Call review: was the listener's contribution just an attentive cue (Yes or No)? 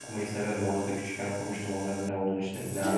No